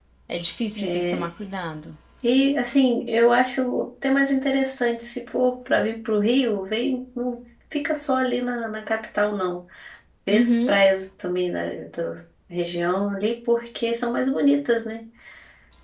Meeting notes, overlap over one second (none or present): none